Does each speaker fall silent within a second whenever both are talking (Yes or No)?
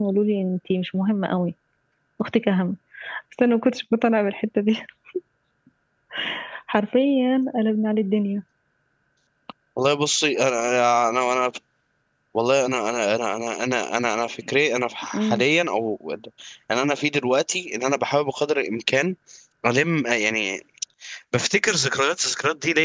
Yes